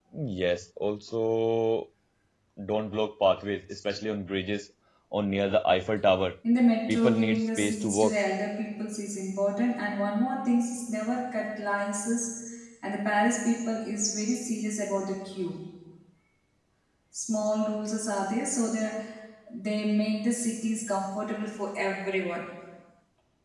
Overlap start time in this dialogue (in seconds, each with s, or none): 6.9 s